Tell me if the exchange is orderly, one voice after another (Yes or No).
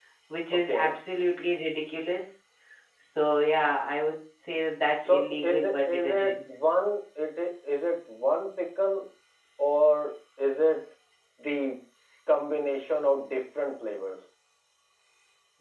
No